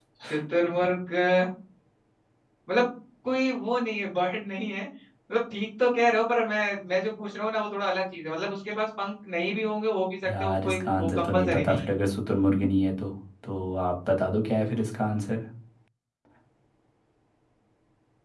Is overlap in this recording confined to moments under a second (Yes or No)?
No